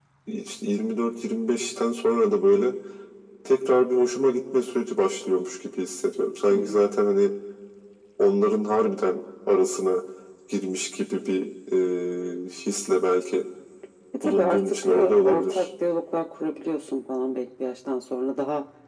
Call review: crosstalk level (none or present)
present